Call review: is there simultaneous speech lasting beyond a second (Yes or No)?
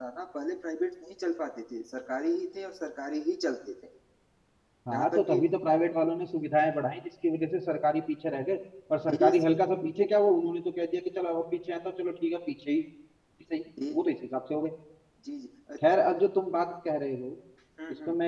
No